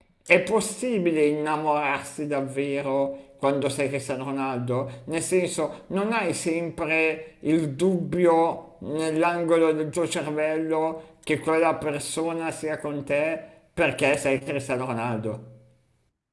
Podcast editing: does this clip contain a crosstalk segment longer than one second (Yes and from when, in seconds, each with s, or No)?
No